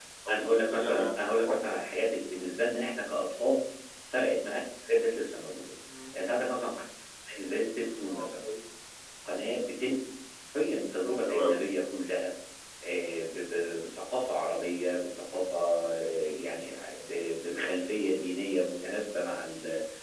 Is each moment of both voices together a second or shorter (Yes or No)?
No